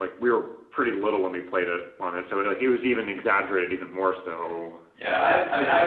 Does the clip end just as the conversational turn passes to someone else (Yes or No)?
Yes